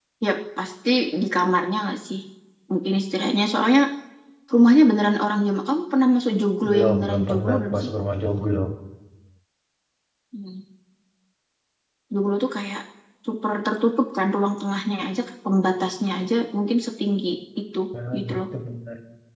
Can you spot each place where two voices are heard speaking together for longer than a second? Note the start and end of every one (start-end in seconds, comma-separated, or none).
6.7-7.9